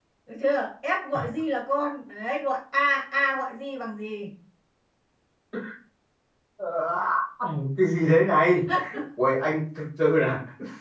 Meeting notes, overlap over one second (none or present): none